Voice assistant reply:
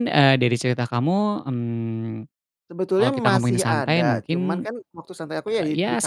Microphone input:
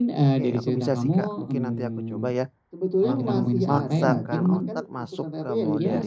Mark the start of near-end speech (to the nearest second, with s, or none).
0 s